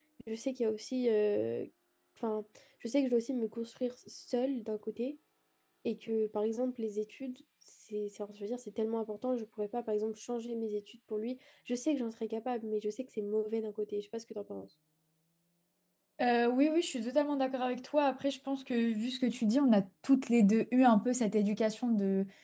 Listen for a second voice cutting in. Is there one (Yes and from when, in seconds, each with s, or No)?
No